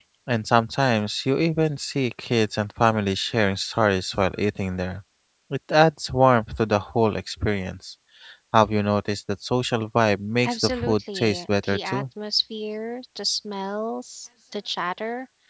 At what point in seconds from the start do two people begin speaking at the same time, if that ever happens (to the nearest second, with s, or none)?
10 s